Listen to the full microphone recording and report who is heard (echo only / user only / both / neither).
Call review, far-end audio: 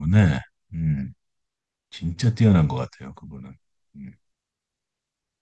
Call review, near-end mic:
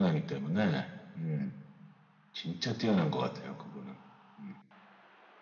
echo only